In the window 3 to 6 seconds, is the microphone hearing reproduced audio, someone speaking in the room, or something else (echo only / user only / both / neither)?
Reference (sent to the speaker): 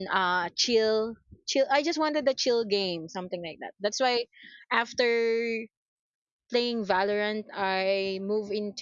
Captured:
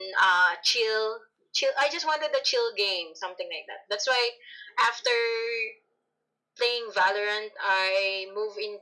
echo only